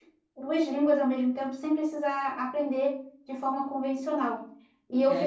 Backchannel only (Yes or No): Yes